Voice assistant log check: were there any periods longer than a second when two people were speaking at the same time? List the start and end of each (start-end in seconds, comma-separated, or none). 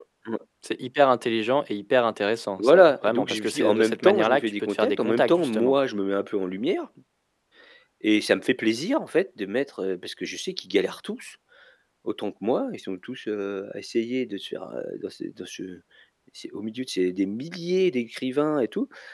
2.6-5.8